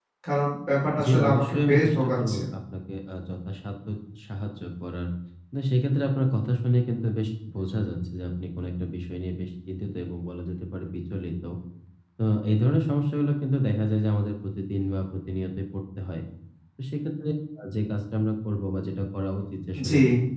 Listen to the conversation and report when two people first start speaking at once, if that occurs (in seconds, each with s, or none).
1.0 s